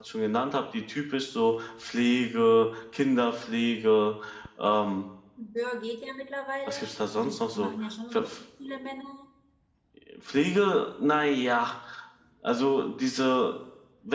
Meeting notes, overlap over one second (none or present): present